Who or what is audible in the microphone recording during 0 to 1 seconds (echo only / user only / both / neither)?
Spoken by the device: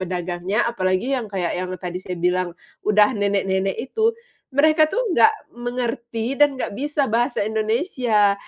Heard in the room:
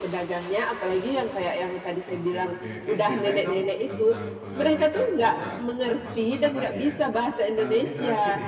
echo only